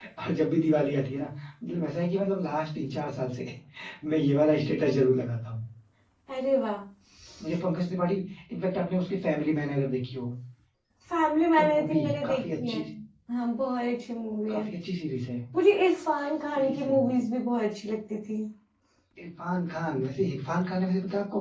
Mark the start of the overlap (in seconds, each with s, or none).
11.6 s